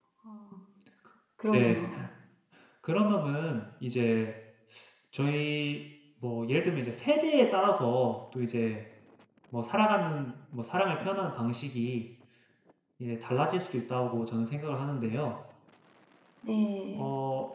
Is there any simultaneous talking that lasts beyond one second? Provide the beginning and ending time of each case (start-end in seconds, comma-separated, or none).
none